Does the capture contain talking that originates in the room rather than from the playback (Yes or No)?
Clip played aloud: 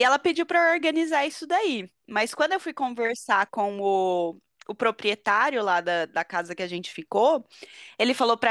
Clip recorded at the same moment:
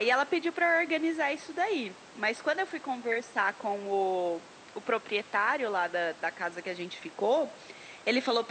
No